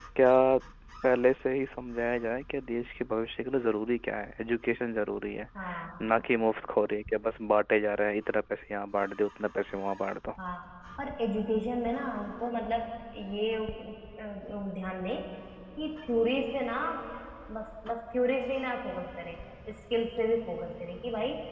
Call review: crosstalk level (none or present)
none